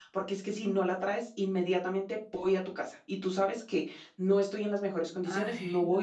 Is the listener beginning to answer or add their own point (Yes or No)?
No